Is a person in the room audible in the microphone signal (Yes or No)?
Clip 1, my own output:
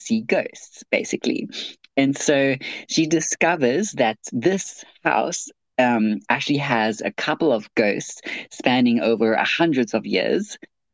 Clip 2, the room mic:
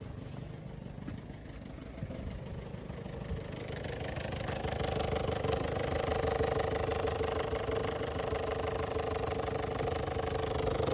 No